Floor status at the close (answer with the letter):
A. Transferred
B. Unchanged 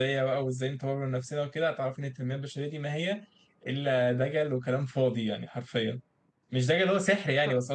B